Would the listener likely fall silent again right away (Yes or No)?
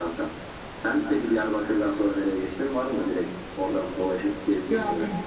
No